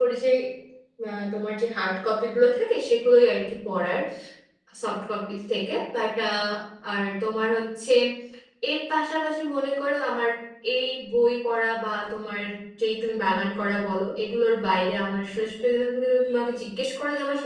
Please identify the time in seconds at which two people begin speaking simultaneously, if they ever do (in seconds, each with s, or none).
none